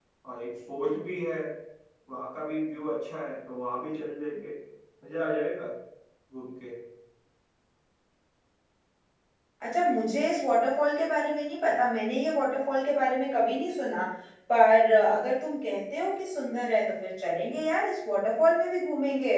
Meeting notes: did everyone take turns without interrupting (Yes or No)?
Yes